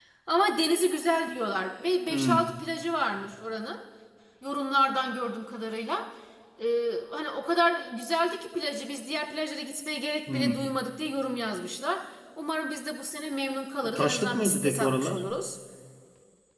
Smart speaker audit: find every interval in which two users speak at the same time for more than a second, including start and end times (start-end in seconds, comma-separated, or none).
13.9-15.2